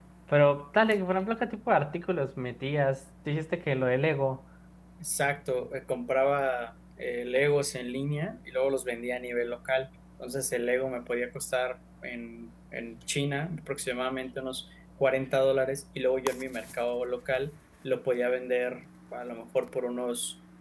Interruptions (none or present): none